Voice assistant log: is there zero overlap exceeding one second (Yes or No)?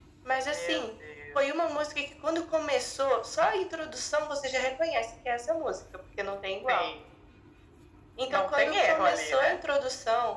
No